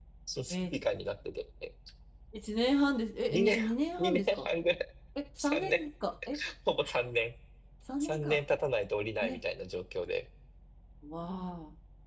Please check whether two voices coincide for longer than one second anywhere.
No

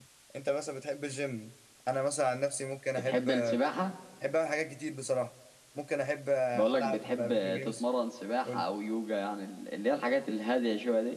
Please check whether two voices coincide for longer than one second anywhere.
Yes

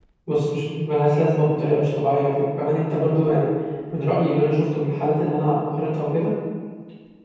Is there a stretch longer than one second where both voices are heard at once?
No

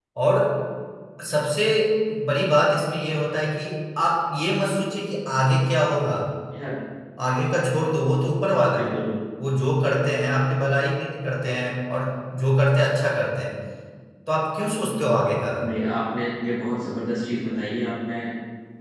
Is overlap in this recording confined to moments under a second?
Yes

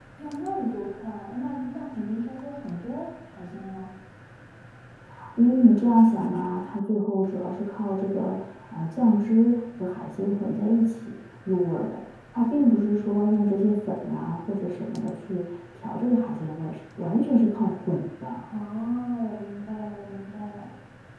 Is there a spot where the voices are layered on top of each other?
No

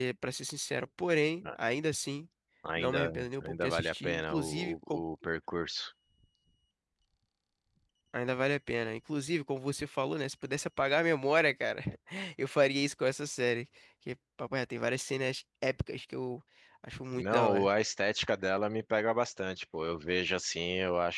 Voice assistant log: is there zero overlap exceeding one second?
No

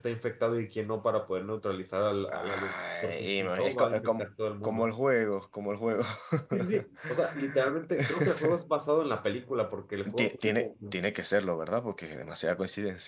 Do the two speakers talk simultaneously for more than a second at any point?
Yes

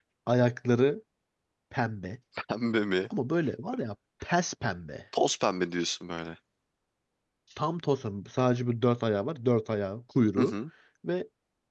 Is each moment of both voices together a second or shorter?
Yes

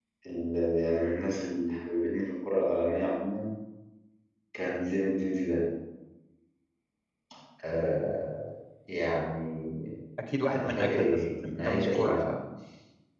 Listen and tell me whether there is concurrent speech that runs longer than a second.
Yes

